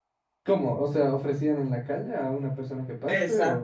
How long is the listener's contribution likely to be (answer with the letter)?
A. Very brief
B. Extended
B